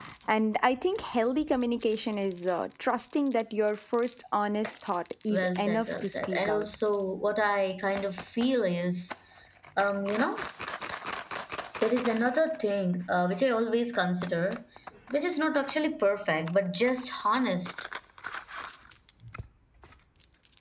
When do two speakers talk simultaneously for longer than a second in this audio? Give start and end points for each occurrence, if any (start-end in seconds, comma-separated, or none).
5.3-6.7